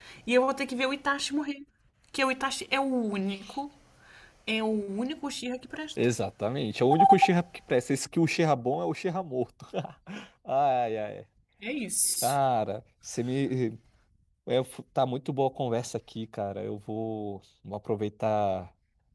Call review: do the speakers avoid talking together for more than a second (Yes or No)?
Yes